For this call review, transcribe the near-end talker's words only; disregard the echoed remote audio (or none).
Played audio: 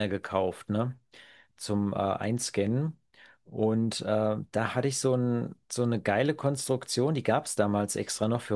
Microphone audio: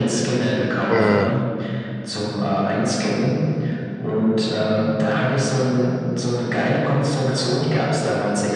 äh,